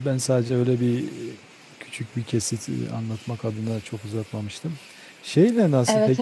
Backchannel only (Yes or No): Yes